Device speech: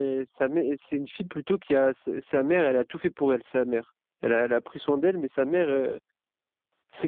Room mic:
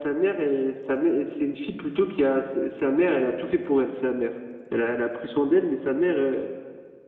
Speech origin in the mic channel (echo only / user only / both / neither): echo only